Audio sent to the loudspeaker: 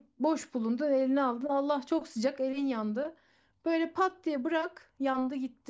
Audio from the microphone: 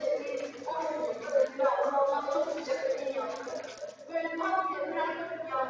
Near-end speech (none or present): none